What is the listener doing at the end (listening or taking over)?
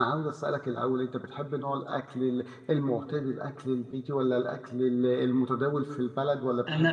taking over